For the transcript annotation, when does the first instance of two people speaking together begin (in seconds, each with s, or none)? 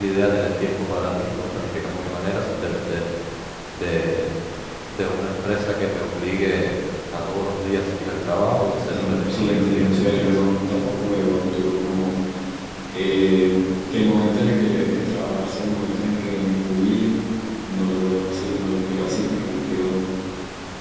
8.9 s